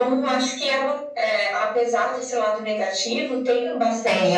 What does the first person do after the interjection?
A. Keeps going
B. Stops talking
B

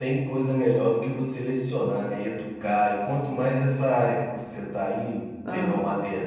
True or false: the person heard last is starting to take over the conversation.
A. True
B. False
B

